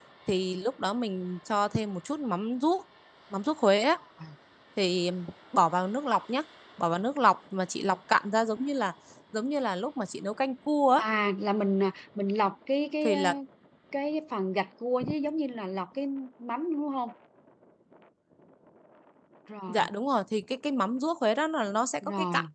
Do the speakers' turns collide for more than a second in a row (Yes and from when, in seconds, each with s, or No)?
No